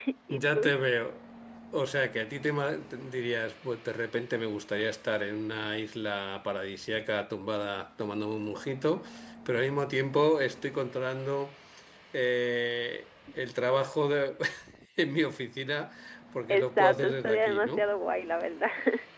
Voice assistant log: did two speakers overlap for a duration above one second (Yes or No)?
Yes